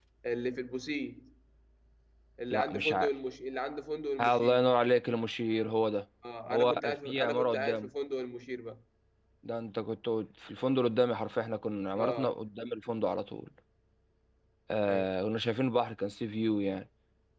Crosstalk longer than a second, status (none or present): present